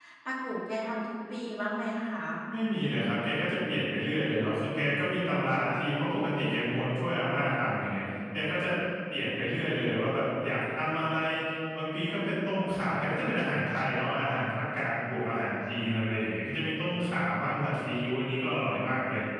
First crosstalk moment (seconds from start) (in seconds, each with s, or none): none